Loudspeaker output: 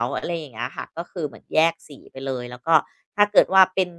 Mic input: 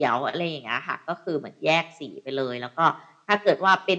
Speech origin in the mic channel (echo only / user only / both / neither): echo only